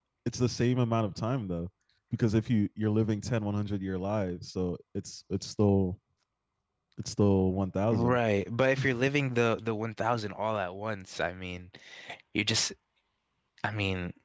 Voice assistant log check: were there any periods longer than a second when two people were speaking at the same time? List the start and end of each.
none

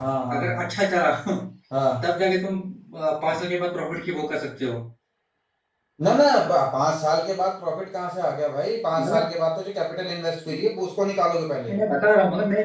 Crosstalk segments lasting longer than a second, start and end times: none

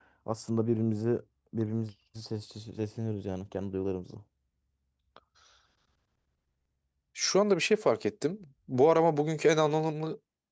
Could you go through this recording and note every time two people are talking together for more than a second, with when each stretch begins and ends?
none

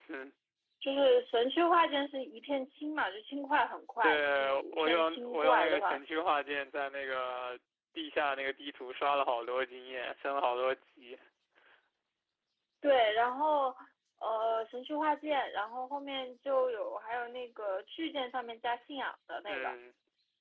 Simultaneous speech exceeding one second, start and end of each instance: 4.0-6.0

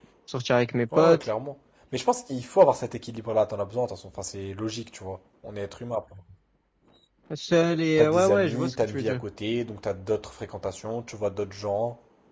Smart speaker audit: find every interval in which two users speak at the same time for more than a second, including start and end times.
8.0-9.2

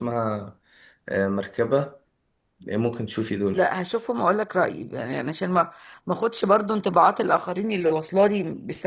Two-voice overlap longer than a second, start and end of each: none

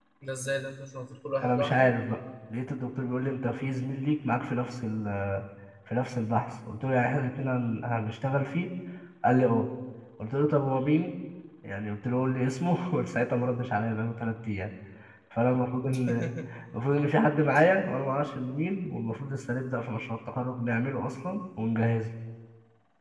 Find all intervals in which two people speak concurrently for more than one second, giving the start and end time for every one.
none

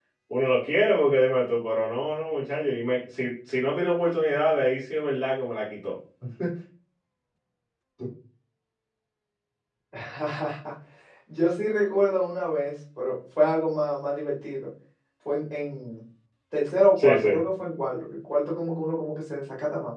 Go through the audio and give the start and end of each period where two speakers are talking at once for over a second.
none

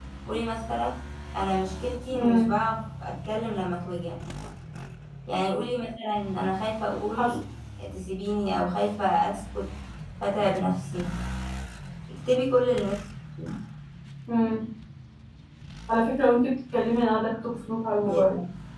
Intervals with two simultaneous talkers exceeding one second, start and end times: none

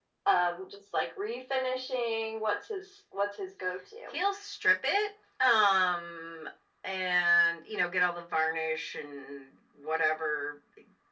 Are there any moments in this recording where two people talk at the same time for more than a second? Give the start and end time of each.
none

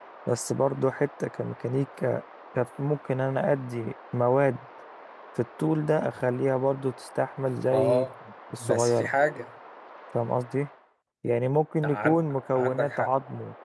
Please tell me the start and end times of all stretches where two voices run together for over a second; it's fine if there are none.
11.8-13.1

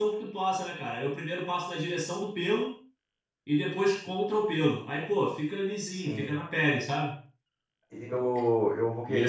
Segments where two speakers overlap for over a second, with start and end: none

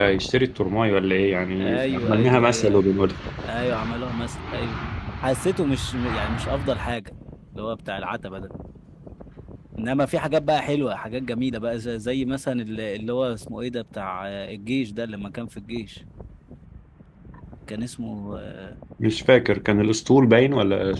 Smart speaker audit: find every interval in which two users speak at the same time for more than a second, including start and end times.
1.6-2.8

